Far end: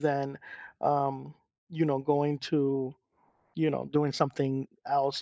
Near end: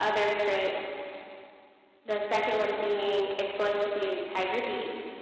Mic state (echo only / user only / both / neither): user only